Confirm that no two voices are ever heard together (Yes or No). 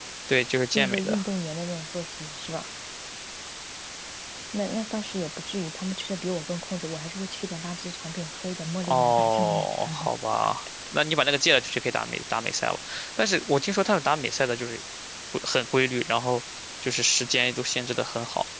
No